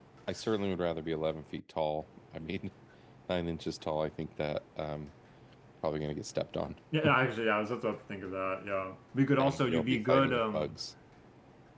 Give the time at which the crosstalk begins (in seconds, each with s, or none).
9.4 s